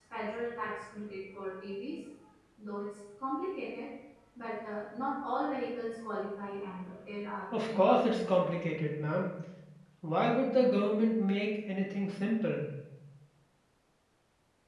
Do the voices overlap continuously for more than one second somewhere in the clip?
Yes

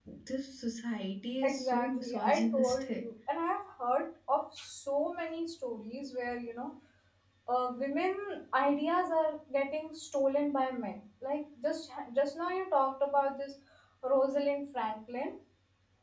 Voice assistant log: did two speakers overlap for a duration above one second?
Yes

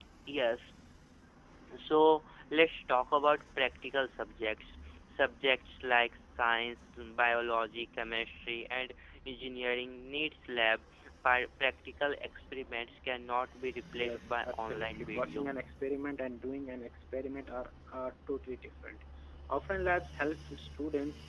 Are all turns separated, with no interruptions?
No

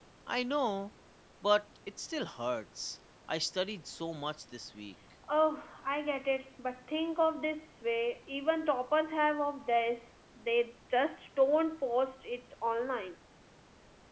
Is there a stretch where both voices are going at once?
No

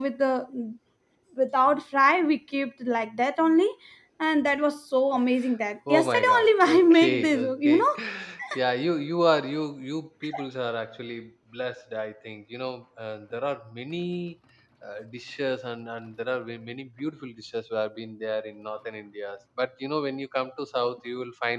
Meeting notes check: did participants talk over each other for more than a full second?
Yes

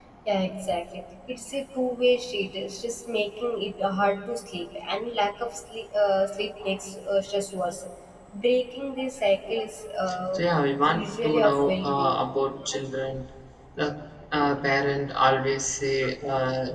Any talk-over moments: Yes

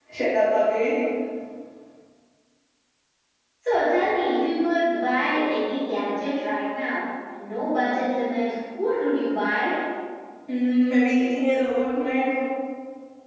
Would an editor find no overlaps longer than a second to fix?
Yes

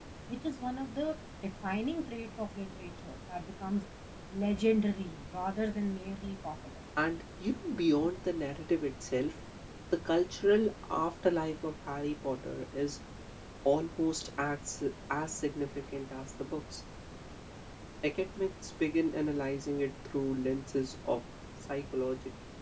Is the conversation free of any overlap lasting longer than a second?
Yes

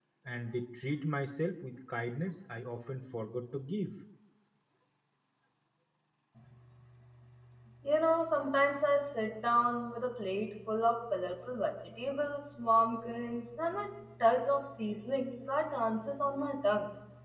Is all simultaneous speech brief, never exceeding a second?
Yes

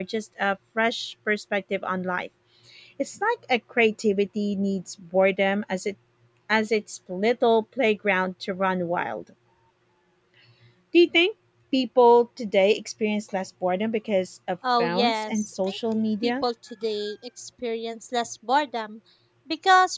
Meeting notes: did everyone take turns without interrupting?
No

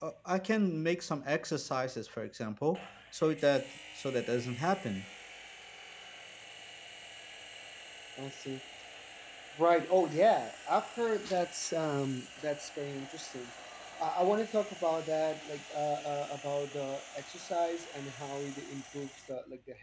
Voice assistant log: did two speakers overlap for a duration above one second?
No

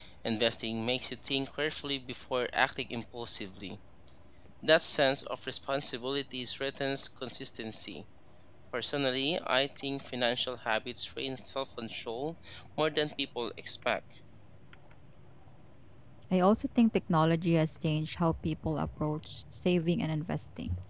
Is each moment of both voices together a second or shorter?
Yes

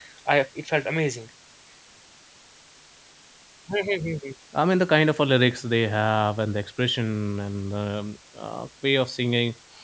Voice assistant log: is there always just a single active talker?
Yes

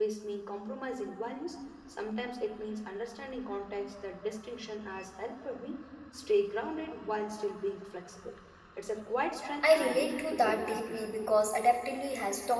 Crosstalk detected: Yes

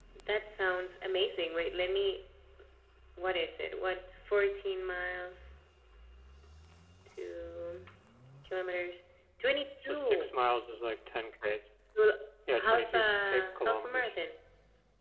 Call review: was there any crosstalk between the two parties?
Yes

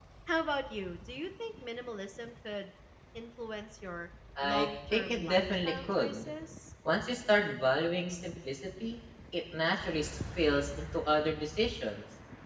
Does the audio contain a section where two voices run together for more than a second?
Yes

